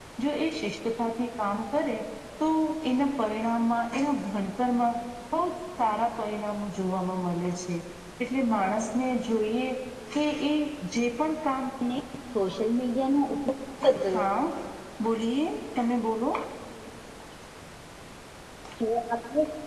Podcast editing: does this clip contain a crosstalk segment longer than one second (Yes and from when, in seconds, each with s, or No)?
No